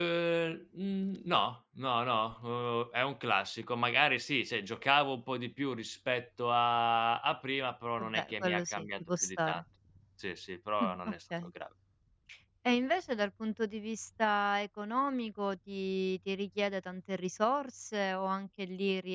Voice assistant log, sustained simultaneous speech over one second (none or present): present